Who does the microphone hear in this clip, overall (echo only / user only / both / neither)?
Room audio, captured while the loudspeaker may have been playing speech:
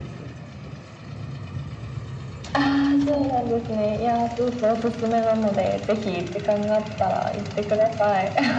echo only